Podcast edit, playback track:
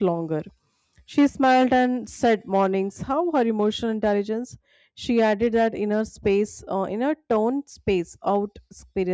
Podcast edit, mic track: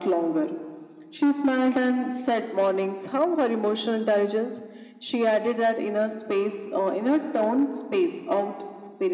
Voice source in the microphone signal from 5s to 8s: echo only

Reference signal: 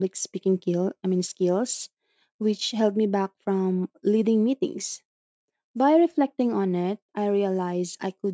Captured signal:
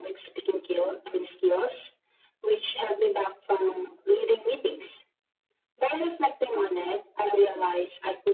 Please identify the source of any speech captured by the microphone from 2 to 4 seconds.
echo only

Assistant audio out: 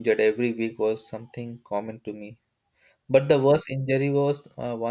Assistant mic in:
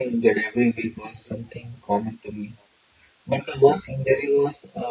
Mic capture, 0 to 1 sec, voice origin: echo only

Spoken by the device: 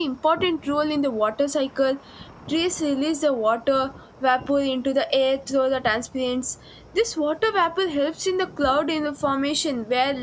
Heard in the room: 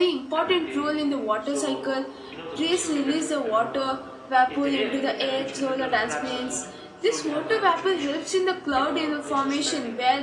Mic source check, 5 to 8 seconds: both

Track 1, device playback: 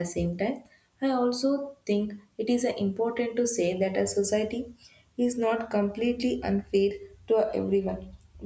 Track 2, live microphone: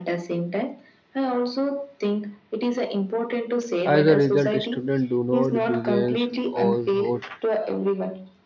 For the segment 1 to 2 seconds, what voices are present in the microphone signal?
echo only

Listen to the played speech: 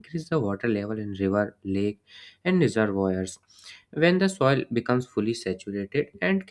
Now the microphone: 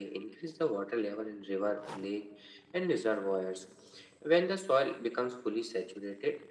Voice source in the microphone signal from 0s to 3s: echo only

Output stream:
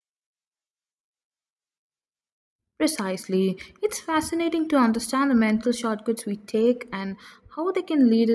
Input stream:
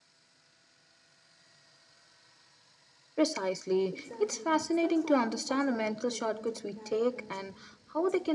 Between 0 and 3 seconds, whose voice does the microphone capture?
neither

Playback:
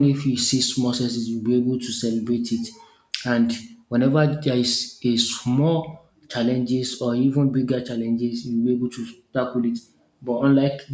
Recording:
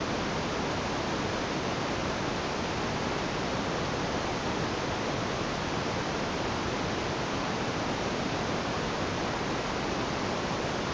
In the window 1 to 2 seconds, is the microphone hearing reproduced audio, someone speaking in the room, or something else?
neither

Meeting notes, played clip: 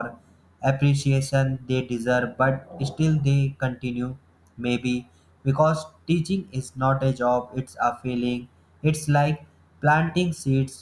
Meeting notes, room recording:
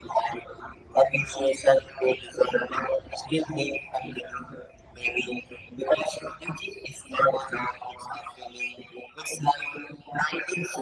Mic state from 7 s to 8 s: echo only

